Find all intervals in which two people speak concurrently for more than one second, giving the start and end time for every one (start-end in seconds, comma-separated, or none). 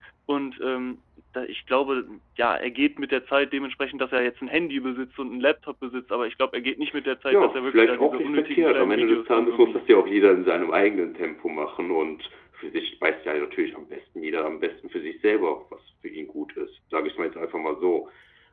7.3-9.8